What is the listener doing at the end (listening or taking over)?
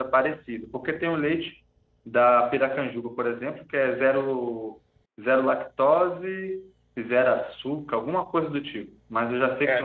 taking over